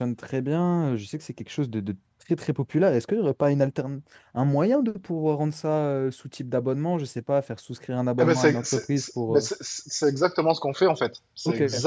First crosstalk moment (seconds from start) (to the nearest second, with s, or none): 8 s